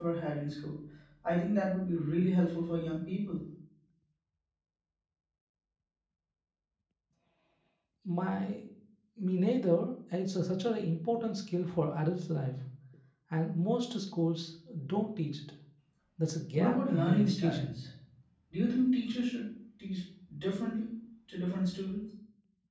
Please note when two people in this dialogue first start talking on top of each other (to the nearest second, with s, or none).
17 s